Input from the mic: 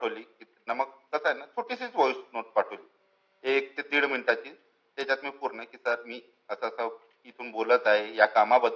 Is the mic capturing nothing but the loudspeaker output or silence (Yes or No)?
Yes